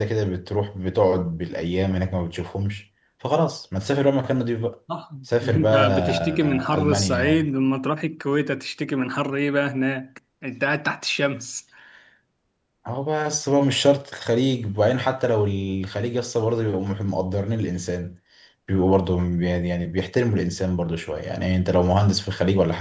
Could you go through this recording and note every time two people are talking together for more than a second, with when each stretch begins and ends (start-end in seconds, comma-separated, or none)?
5.4-7.5